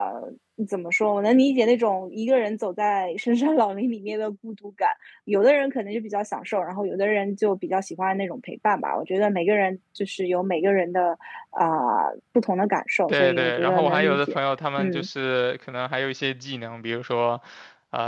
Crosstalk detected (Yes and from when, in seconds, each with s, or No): Yes, from 13.1 s